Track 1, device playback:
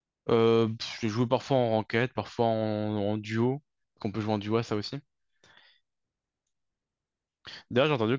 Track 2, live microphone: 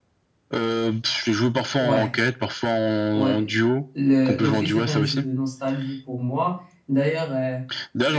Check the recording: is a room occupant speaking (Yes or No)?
Yes